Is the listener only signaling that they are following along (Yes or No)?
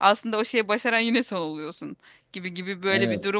Yes